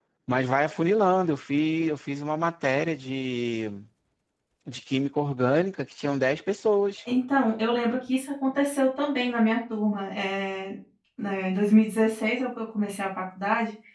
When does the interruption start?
none

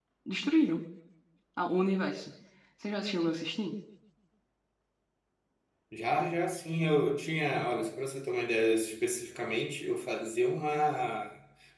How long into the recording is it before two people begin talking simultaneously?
none

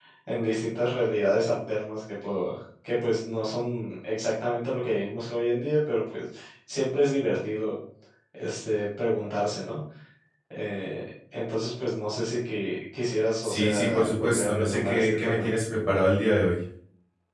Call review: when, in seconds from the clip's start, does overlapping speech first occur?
13 s

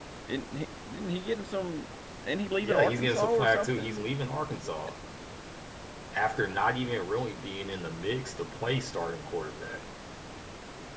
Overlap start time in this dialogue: 3 s

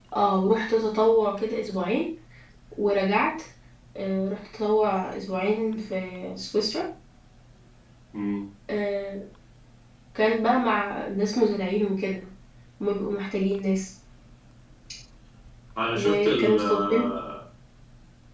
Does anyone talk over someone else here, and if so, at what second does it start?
16 s

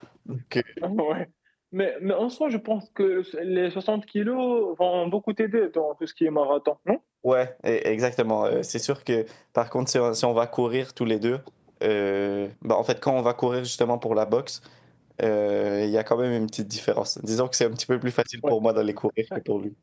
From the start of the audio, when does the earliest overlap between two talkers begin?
none

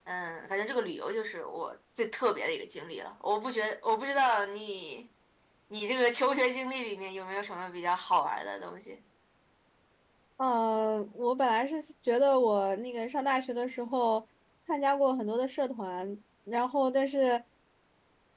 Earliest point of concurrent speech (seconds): none

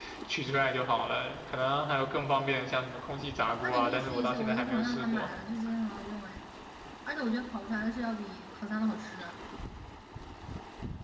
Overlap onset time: 4 s

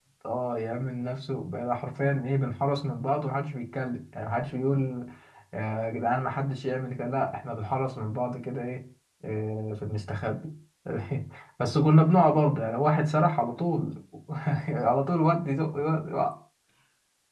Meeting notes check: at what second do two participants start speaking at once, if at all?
none

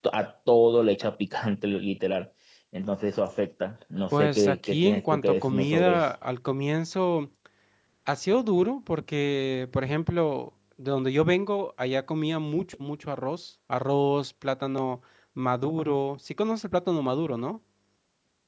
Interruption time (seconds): 4 s

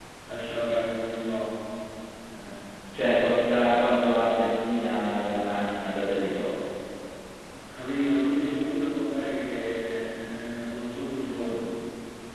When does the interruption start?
none

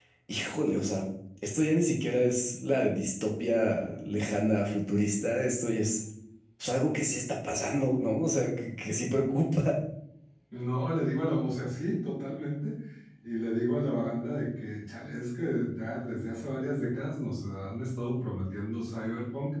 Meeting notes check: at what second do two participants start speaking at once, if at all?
none

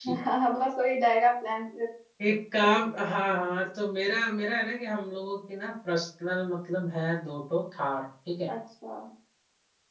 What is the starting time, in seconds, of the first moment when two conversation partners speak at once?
none

